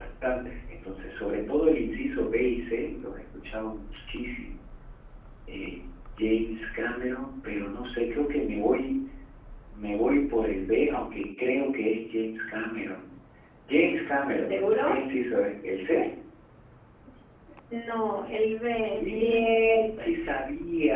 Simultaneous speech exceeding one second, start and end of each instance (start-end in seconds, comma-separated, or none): 18.9-20.1